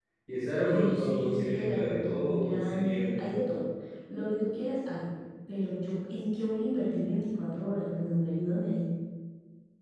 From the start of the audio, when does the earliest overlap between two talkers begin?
1 s

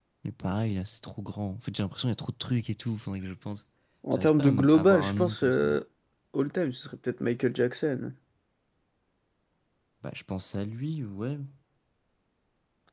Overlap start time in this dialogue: 4 s

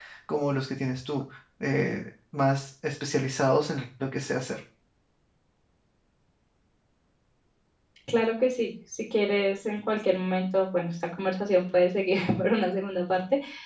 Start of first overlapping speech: none

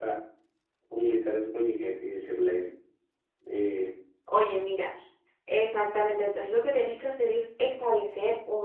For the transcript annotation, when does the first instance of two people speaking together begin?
none

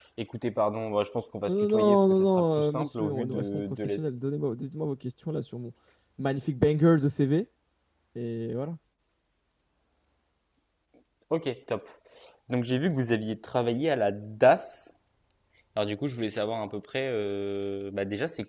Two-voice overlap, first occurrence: 1 s

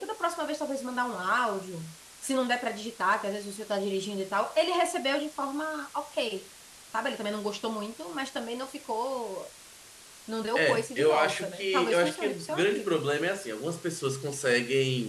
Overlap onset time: 11 s

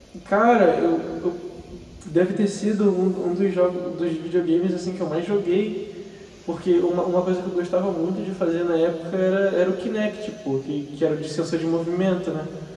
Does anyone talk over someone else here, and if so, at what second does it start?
none

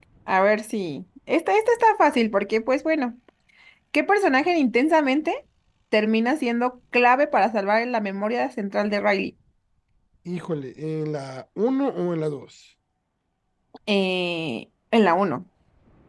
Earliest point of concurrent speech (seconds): none

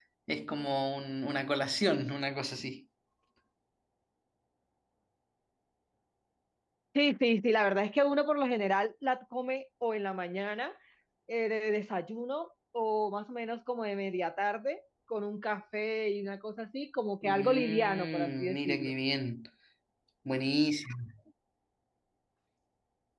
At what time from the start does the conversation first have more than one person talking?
17 s

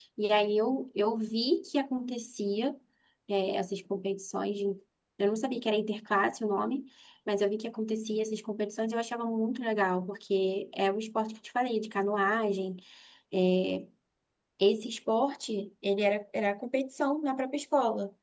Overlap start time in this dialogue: none

